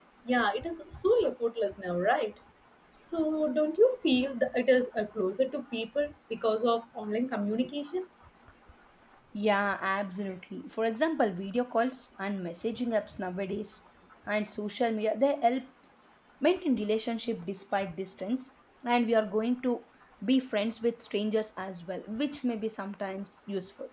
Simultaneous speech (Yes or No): No